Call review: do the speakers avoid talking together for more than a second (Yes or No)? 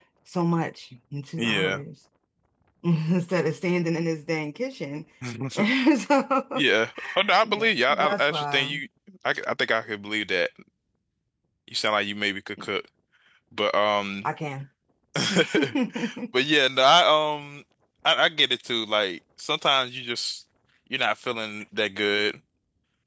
No